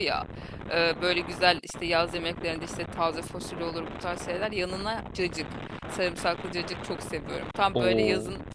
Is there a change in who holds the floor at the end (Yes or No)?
No